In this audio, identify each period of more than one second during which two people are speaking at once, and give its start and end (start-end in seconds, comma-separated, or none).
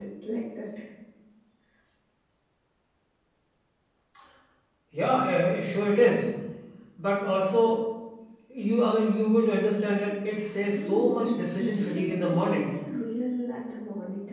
10.8-12.7